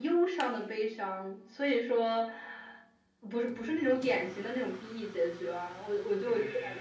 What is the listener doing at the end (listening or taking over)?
taking over